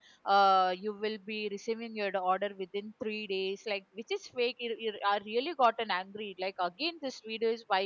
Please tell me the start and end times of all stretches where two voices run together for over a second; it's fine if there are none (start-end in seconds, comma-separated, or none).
none